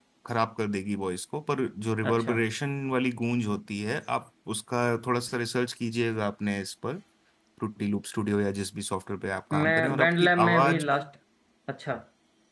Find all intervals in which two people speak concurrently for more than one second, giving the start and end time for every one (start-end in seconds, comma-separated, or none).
9.5-11.0